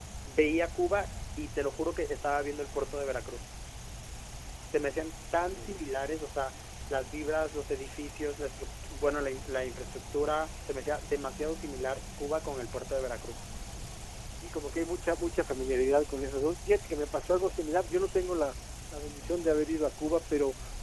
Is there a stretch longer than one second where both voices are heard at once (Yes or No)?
No